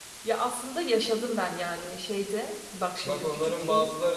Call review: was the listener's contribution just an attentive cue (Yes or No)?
No